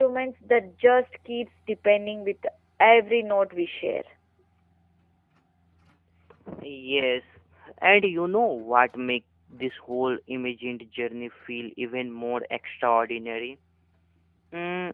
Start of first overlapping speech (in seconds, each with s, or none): none